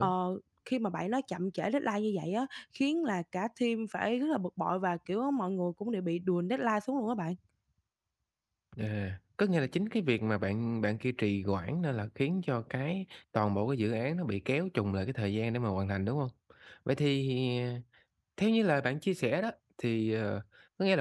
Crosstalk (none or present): none